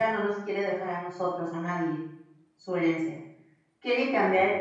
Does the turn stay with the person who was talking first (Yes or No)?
Yes